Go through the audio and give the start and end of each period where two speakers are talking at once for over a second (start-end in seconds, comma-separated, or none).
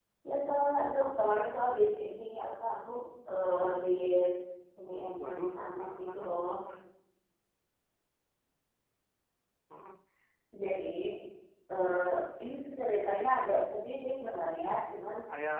5.3-6.5